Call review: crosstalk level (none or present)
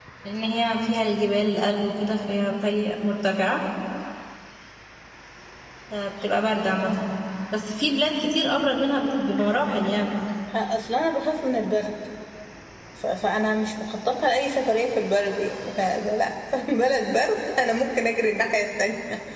none